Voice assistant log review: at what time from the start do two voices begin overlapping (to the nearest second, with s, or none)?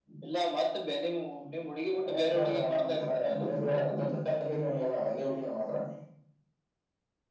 2 s